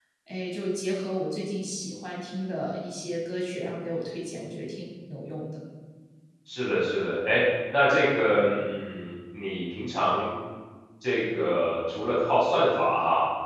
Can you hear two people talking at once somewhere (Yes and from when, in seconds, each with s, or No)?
No